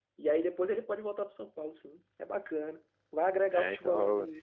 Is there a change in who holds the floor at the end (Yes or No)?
Yes